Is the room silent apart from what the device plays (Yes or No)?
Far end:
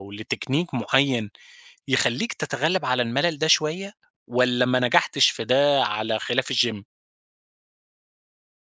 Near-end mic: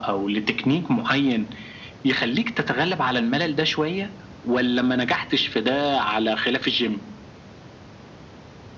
Yes